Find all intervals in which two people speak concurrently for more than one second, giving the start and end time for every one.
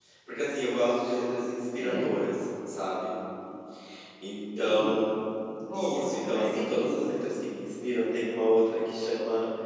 5.7-7.0

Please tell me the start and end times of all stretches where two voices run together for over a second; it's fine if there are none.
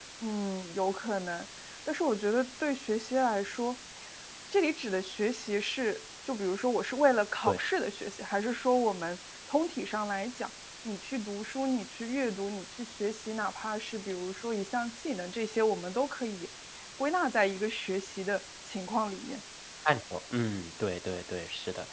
none

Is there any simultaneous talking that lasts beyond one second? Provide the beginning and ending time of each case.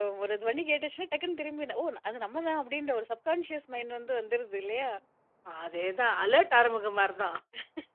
none

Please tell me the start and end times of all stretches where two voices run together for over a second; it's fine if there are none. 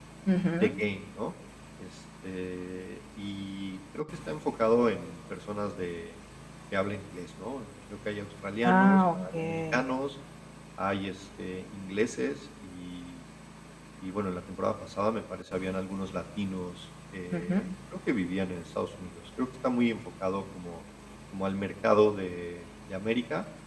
8.6-9.8

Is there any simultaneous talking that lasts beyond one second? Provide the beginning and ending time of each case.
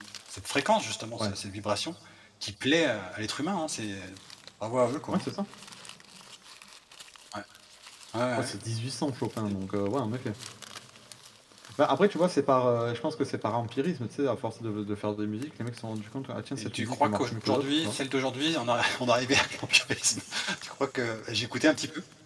16.5-18.0

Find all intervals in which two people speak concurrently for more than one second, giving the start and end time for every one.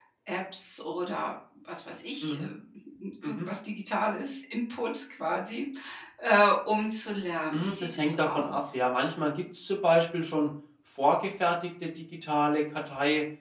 7.5-8.8

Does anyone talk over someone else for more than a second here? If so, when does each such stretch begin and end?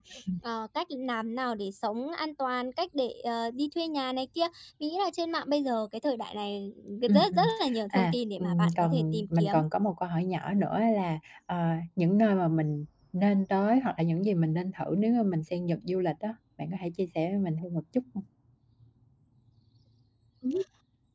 7.9-9.6

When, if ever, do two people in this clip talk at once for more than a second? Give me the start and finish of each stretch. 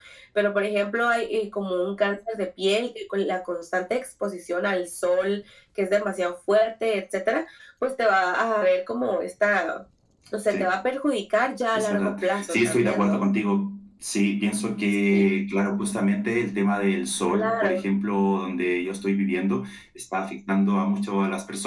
11.7-13.2

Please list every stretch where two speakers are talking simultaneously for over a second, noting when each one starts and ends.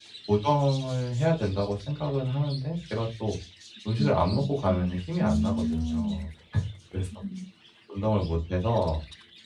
4.0-6.2

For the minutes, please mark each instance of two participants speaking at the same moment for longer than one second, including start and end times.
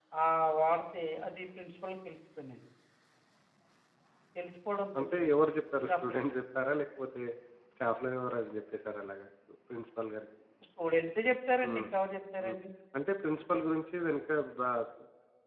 none

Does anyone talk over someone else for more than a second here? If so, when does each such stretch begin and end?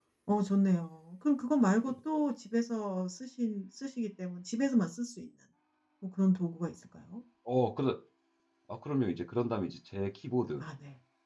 none

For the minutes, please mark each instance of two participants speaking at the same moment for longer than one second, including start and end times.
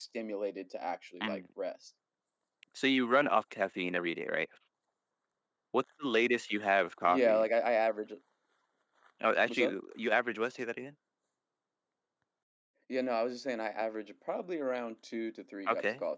none

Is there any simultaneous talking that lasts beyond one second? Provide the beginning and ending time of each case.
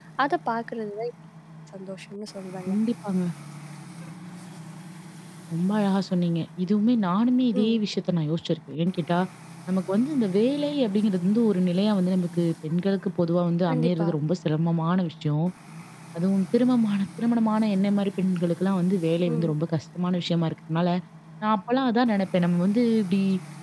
none

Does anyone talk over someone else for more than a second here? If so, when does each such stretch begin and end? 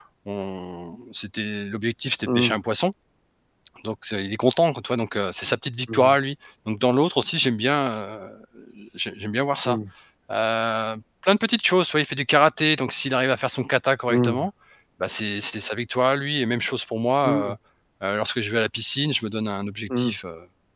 none

